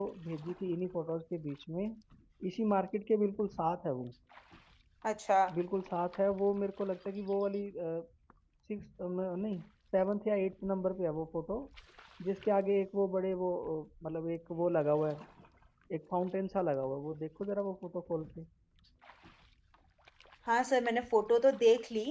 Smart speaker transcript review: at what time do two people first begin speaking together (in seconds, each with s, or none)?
none